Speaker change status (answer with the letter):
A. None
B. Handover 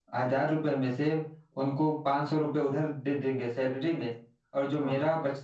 A